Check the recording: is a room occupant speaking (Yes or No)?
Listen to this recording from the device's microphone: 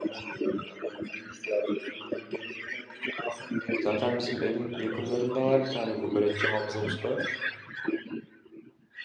Yes